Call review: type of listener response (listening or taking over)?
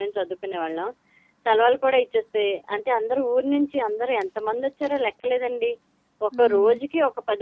listening